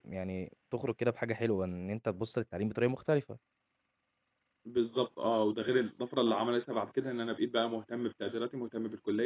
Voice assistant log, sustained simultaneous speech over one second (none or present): none